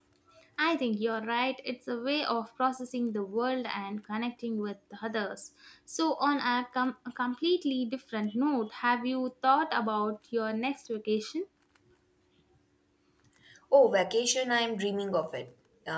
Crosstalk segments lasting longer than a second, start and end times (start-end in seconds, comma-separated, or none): none